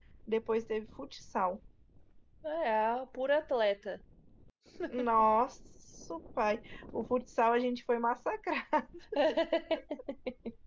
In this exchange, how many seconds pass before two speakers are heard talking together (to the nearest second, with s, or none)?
none